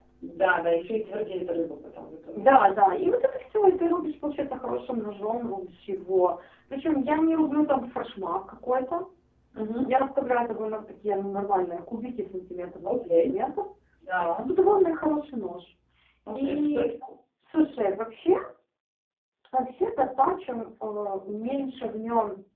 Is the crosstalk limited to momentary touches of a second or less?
Yes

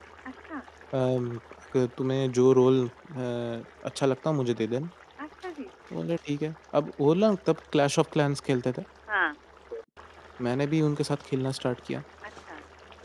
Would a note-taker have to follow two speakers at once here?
No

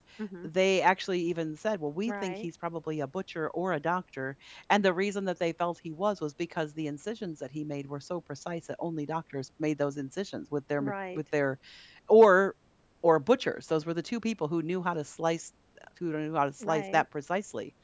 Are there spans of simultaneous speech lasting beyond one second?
No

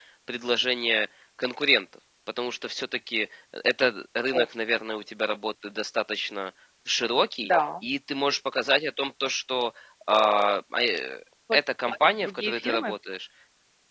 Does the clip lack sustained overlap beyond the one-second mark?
No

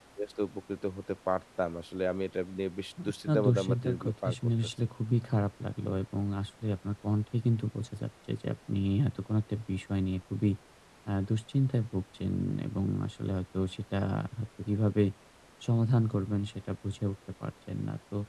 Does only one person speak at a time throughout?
No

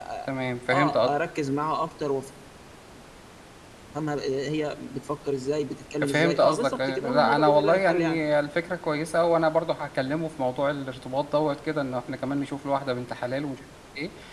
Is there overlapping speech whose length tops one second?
Yes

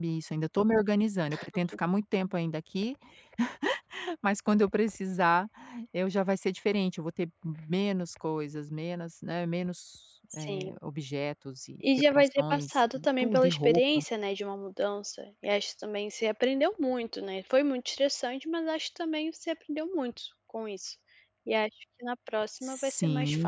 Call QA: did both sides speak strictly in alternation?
No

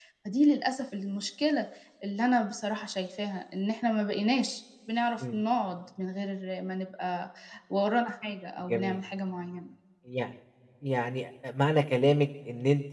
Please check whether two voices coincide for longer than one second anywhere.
No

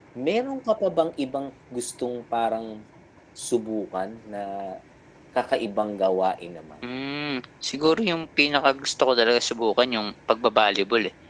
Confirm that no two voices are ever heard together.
Yes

